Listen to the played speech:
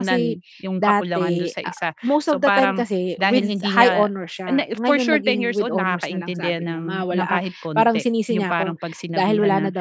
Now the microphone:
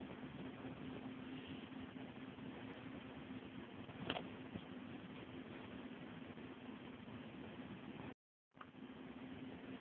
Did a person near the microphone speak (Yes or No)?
No